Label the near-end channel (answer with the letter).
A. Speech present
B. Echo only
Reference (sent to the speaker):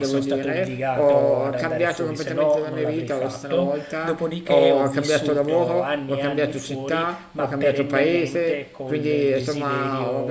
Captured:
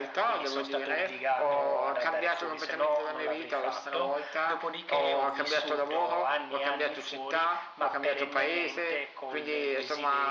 B